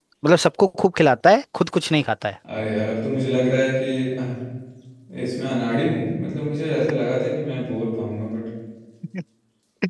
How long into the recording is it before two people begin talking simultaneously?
none

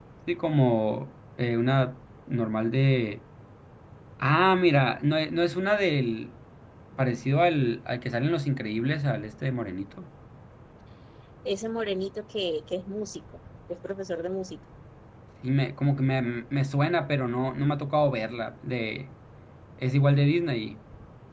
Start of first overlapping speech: none

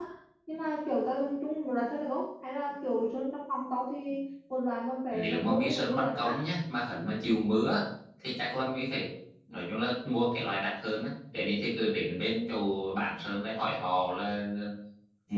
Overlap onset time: 5.1 s

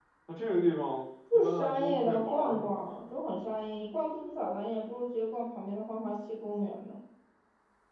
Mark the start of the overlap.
1.3 s

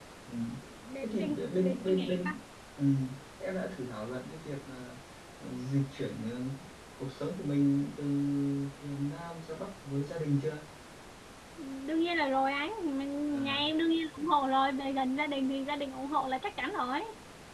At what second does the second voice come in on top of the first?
1.0 s

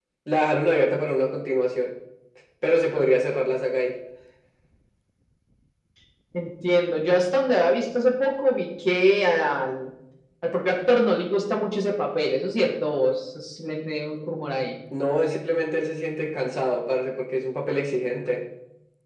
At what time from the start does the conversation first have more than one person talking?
none

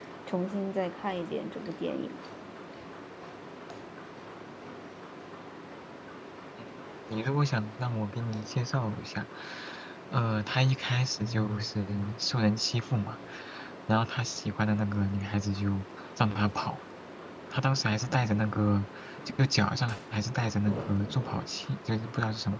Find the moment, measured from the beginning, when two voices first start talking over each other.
none

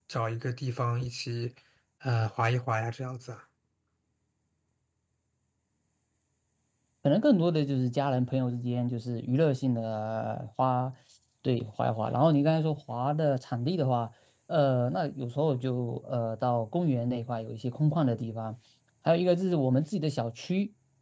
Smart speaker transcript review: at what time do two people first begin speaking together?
none

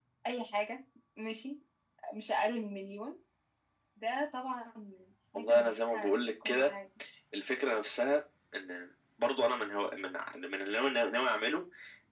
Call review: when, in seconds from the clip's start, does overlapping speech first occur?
5.4 s

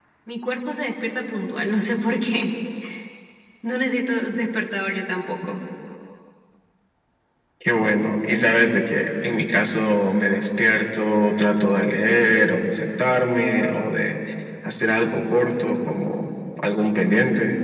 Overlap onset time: none

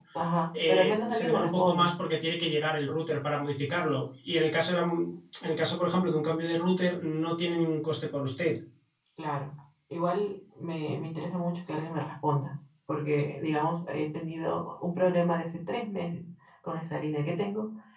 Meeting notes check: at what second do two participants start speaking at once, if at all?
0.7 s

